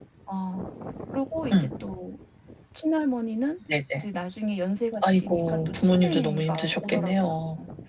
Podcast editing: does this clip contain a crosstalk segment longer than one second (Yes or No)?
Yes